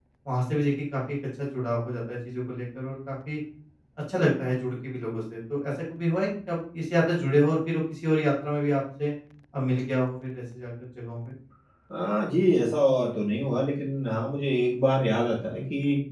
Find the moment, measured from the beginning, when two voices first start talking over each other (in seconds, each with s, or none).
none